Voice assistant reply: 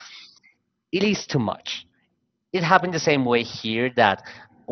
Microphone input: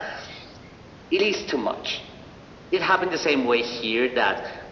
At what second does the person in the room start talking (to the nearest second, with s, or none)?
none